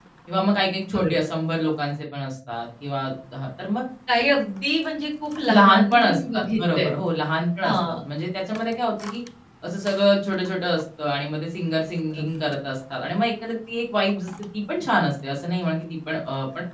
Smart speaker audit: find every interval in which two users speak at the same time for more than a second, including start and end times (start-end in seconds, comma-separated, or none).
5.5-6.9